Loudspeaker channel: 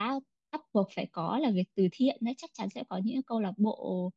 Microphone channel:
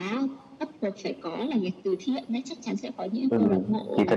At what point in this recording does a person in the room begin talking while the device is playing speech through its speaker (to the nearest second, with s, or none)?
3 s